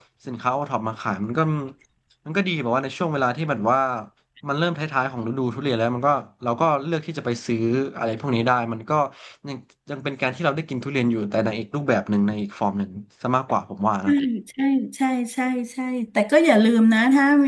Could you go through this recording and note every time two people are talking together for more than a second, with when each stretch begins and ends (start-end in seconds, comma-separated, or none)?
none